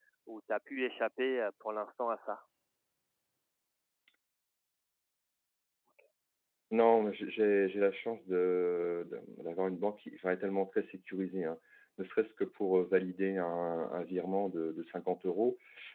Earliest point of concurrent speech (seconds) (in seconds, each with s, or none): none